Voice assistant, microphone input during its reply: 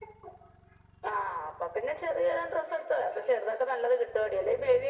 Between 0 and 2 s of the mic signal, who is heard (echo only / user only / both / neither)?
echo only